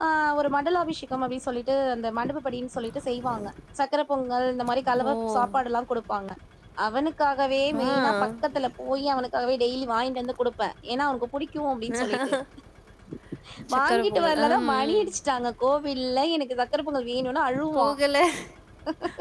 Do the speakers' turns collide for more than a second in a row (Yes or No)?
Yes